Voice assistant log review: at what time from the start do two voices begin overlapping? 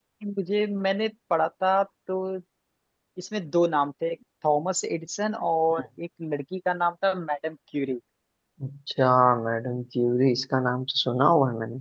none

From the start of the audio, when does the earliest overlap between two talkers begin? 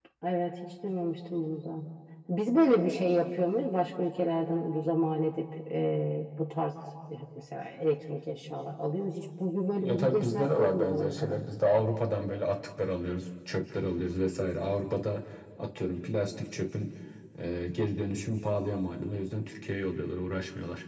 9.8 s

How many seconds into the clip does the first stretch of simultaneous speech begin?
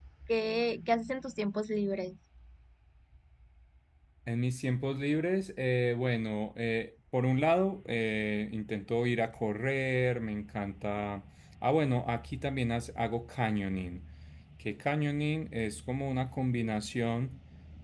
none

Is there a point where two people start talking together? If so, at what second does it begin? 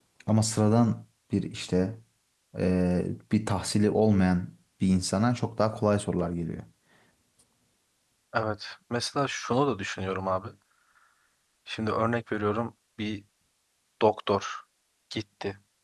none

